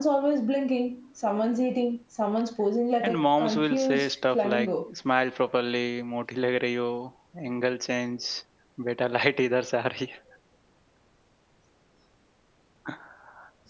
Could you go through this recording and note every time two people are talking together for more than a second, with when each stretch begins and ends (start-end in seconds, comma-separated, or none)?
3.0-4.7